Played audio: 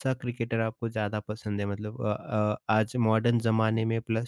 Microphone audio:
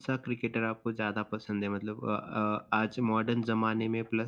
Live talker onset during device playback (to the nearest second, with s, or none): none